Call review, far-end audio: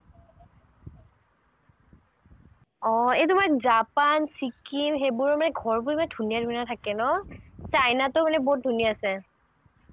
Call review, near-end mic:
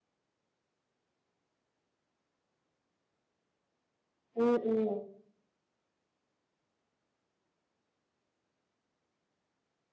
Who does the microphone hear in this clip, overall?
user only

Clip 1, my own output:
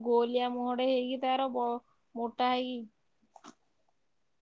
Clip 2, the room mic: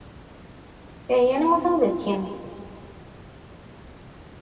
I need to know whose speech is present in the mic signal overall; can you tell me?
user only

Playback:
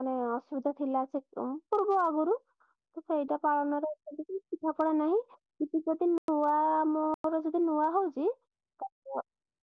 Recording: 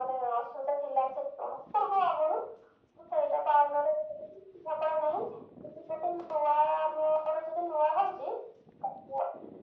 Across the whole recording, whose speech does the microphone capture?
echo only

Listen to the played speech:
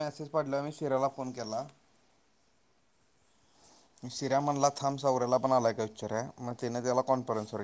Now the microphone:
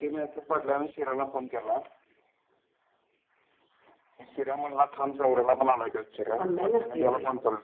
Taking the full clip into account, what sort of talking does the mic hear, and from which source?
both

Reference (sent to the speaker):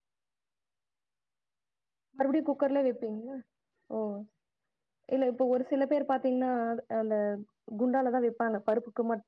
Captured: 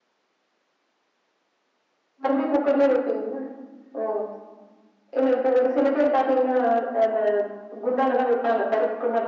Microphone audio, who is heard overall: echo only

